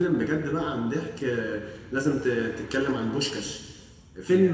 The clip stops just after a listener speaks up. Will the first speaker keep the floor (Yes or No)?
Yes